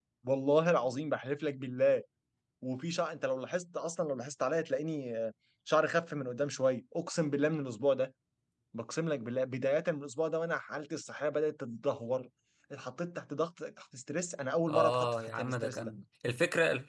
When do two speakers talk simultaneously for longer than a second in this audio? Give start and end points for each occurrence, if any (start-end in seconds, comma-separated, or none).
14.7-15.9